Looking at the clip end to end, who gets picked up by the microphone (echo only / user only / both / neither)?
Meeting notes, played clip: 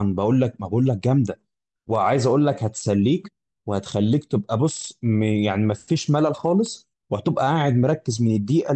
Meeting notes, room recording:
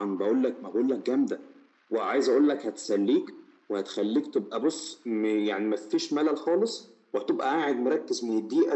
echo only